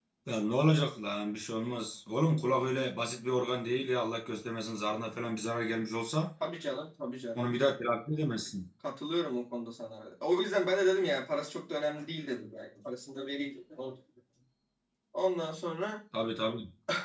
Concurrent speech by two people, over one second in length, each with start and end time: none

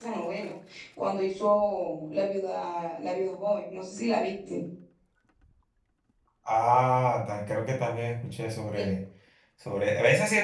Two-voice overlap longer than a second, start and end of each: none

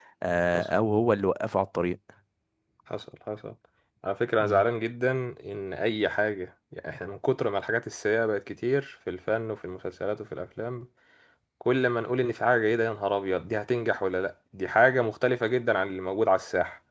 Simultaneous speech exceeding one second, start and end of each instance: none

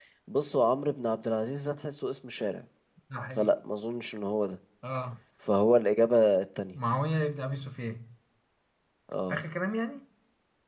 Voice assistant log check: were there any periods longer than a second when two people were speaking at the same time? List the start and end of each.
none

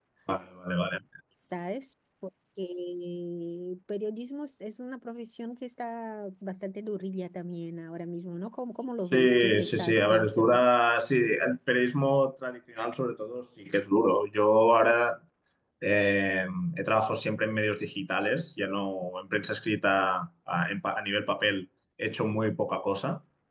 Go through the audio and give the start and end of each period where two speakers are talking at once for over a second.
9.1-10.6

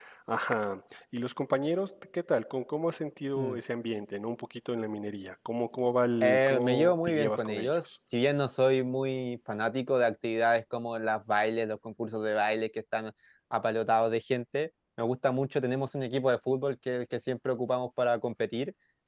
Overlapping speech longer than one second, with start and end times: 6.2-7.8

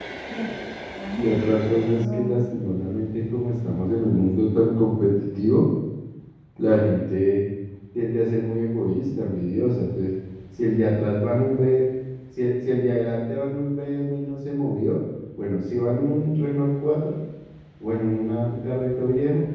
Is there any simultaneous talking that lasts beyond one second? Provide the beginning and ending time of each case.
1.1-2.4

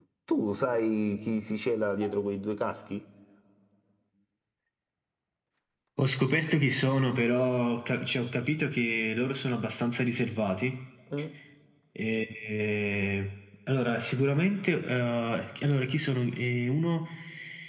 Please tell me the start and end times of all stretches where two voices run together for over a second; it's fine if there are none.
none

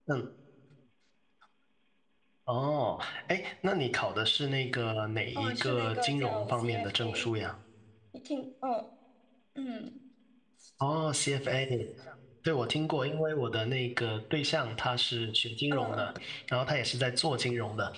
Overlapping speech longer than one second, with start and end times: 5.4-7.3

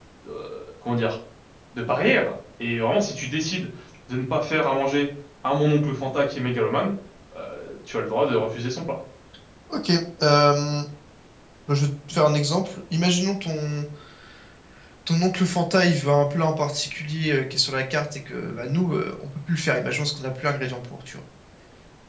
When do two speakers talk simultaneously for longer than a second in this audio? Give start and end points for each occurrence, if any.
none

